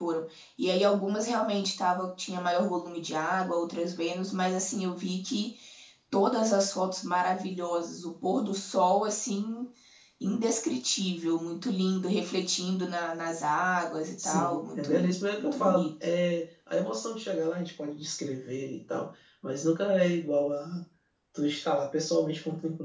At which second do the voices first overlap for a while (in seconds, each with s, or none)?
14.2 s